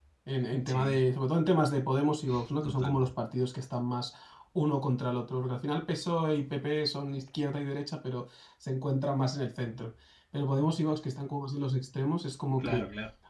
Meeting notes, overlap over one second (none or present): none